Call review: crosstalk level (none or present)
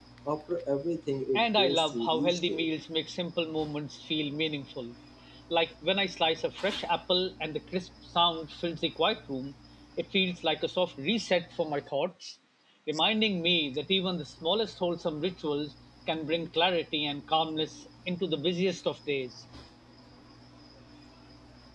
present